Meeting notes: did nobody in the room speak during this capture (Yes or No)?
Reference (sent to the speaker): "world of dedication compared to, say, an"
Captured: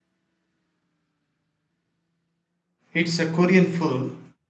No